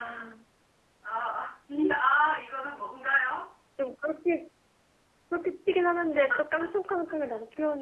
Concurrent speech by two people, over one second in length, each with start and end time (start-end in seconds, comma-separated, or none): none